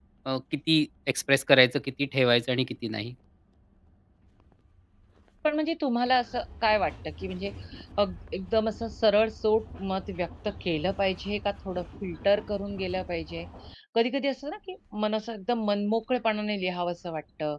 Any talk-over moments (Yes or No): No